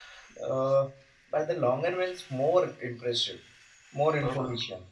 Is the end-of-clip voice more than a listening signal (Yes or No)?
No